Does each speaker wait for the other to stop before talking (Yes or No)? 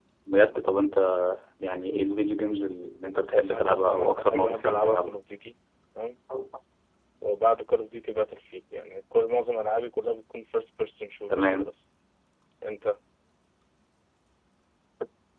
No